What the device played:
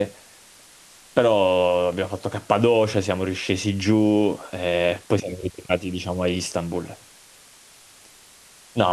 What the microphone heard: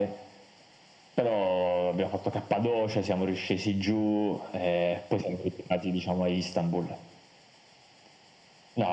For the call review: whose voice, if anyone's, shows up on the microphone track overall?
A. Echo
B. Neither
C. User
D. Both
A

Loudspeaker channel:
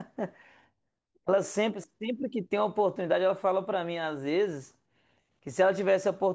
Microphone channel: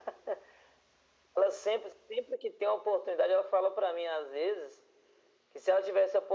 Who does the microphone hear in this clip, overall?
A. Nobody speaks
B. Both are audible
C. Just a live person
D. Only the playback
D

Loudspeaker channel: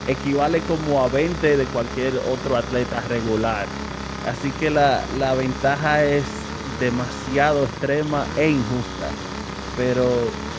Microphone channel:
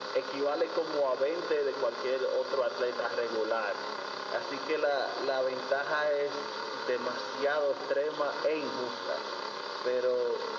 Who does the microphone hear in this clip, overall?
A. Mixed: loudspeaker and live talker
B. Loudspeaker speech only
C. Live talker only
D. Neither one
B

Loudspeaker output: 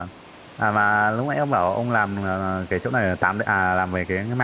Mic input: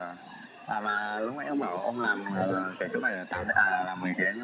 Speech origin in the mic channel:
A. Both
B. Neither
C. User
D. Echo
A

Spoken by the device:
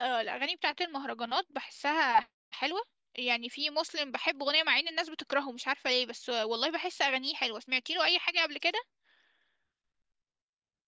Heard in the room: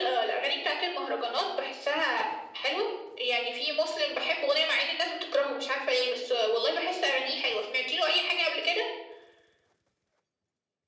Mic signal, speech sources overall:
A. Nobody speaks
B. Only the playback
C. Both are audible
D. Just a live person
B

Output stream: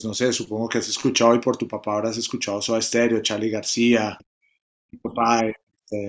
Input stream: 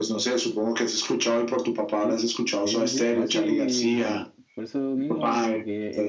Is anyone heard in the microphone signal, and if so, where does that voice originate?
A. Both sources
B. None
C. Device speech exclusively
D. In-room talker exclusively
A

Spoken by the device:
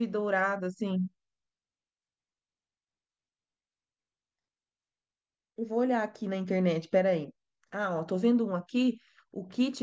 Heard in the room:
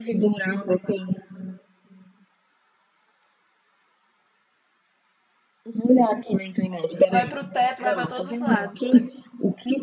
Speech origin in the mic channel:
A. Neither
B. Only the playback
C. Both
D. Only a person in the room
C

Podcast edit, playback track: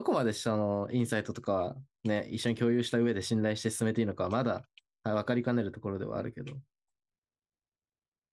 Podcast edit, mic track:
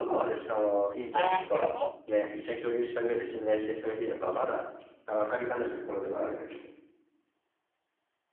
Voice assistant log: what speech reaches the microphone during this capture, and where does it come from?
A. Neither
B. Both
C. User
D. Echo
B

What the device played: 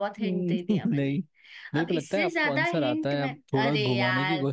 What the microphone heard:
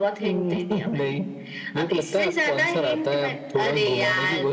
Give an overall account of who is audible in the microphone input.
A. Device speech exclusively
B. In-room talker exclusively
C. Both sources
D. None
A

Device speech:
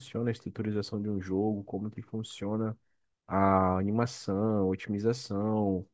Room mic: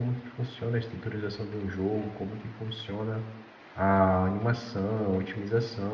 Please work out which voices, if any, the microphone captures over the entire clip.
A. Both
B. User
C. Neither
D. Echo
D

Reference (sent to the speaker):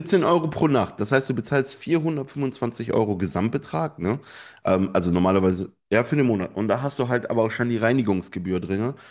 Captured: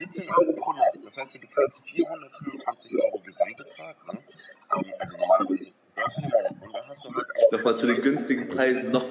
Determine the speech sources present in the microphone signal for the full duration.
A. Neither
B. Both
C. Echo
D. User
B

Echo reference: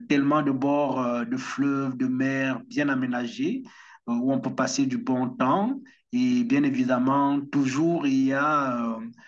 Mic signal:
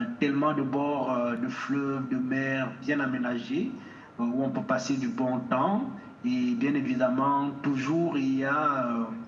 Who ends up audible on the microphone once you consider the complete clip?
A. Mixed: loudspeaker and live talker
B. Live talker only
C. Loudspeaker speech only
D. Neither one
C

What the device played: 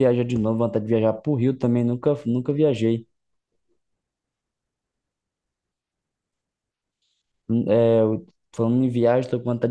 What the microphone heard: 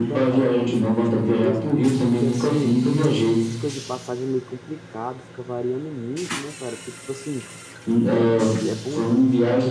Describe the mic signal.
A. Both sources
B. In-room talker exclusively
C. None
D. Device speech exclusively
A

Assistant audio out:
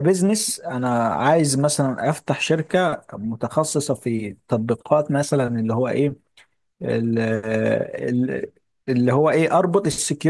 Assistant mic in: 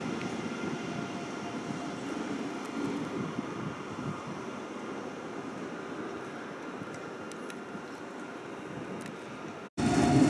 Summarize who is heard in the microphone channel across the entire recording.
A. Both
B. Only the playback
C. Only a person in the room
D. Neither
D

